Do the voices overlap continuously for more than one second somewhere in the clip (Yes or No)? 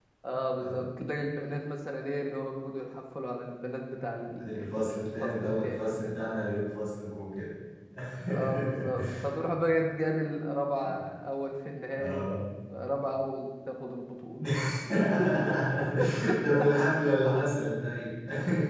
Yes